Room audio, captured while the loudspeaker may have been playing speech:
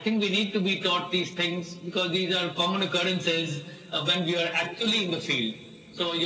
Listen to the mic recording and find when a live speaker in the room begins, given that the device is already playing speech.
none

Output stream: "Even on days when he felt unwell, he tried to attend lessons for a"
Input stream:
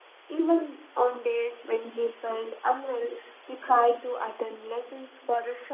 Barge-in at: none

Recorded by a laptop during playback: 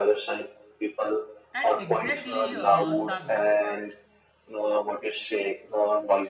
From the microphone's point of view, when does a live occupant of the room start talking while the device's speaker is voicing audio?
1.5 s

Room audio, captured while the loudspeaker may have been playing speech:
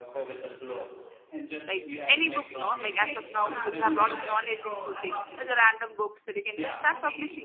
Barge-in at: 1.6 s

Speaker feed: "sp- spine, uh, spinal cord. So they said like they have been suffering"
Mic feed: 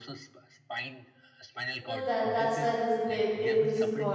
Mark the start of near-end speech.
1.8 s

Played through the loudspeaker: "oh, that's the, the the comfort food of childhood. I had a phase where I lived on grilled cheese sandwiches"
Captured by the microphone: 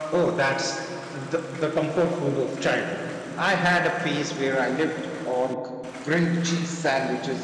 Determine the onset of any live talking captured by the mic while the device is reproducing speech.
none

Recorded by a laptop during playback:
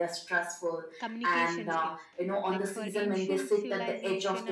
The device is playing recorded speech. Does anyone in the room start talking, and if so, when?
1.0 s

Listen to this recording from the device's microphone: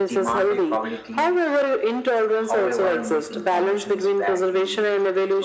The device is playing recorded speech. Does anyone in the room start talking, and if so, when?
none

